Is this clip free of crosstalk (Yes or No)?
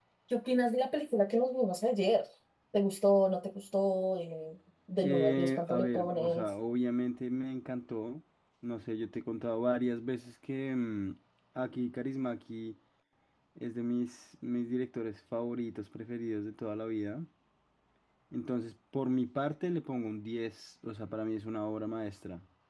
No